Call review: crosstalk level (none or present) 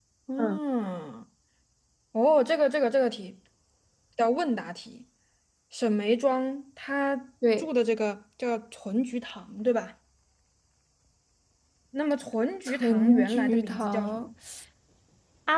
present